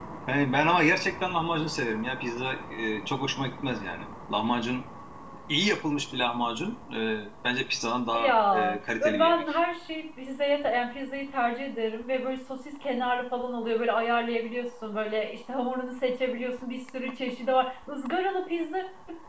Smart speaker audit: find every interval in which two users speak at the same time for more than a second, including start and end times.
8.1-9.4

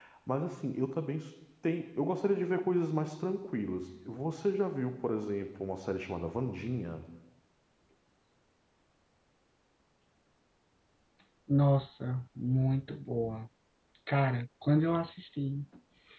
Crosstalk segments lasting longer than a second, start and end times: none

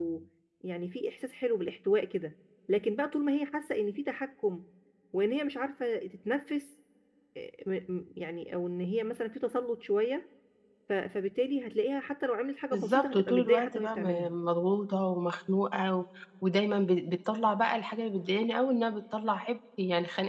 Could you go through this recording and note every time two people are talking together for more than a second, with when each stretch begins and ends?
12.7-14.3

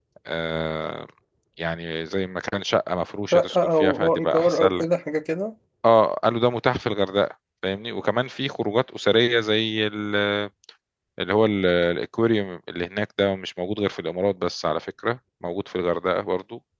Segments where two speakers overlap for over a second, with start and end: 3.3-4.8

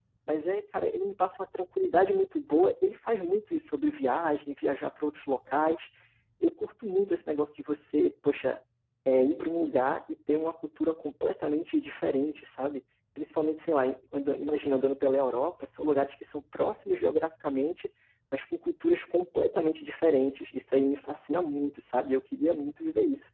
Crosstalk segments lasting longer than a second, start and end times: none

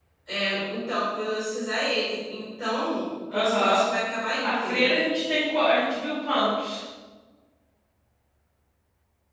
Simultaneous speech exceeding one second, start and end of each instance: none

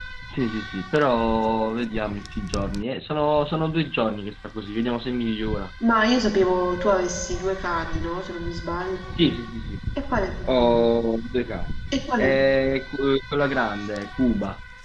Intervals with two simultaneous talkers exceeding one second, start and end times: none

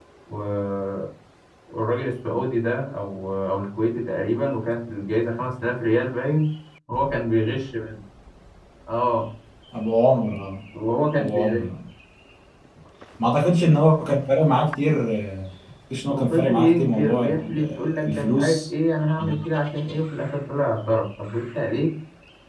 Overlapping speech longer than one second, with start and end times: 16.1-18.6

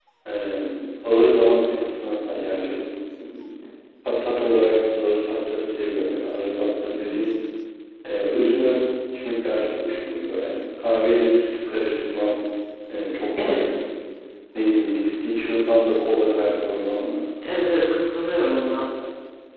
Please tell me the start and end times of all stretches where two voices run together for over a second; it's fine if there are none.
none

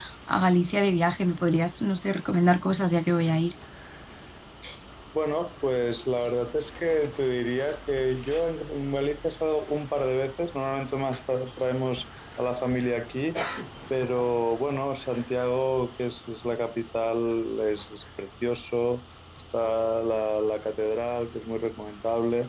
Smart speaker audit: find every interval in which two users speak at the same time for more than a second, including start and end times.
none

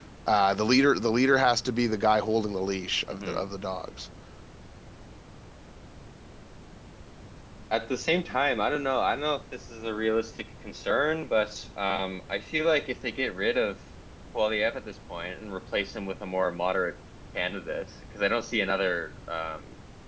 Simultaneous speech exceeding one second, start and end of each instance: none

